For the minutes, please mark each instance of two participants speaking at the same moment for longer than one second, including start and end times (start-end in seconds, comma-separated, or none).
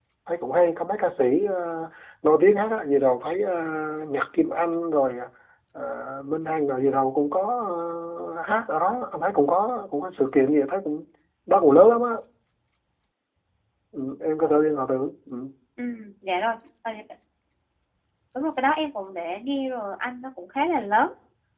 none